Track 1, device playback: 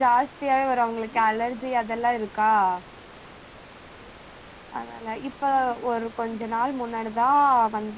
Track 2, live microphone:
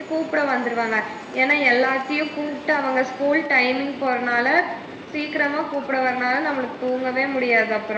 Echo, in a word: none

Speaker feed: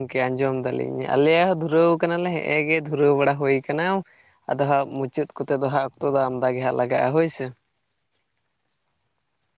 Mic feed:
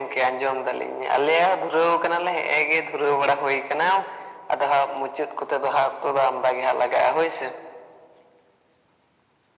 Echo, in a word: present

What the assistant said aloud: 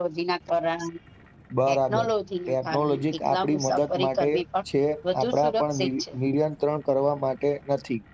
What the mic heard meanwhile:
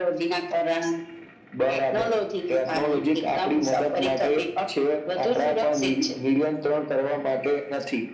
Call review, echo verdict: present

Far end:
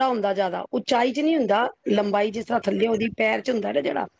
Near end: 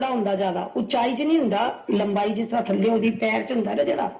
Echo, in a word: present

